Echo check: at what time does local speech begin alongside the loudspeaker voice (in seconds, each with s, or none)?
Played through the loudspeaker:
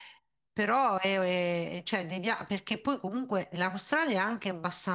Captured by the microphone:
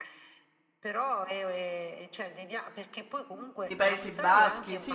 3.7 s